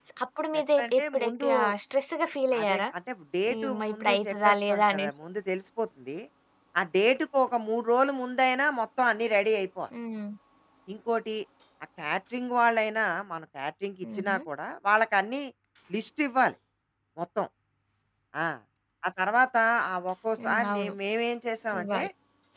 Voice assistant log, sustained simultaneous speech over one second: present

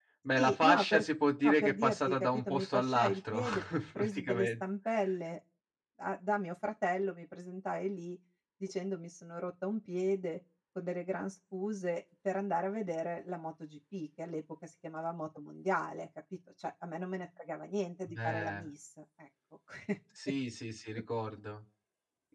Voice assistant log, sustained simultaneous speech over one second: present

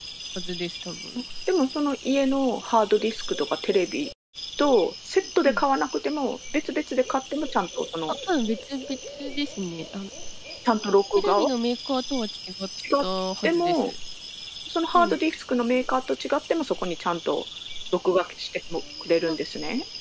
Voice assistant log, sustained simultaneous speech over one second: none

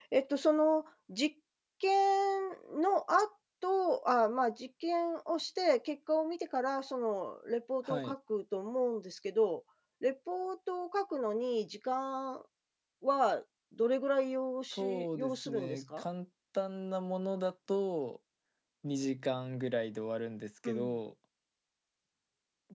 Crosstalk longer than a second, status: present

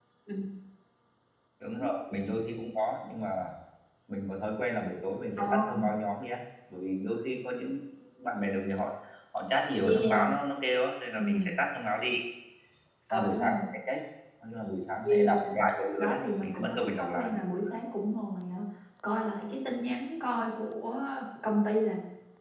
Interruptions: present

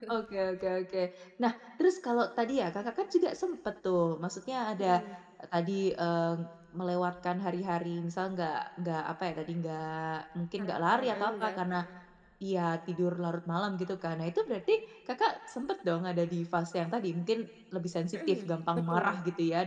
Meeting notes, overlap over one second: present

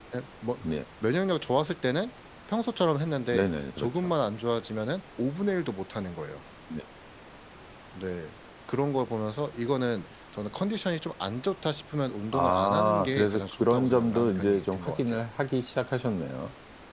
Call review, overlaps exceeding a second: present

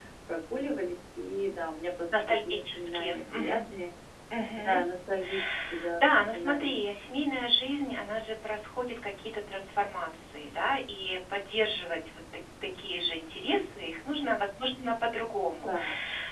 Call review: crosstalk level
present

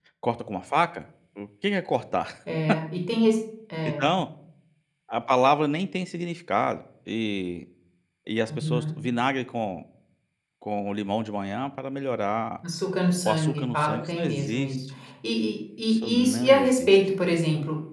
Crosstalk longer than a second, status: present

